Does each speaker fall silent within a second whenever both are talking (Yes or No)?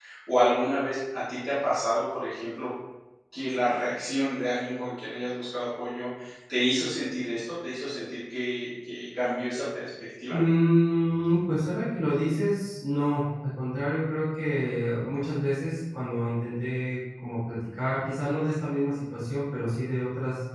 Yes